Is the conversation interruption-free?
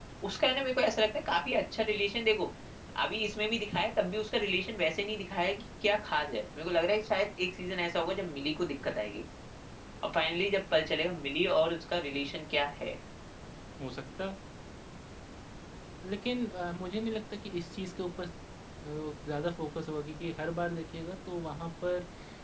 Yes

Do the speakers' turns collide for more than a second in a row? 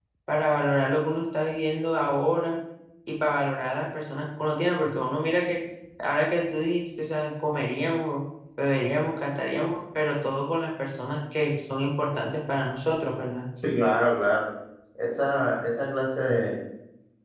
No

